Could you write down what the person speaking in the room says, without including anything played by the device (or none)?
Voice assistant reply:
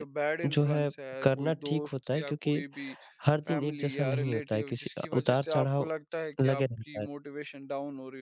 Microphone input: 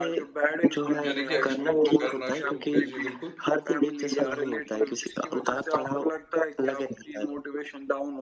यानी कि एक्सप्लोर करना शुरू किया। जी, बिल्कुल।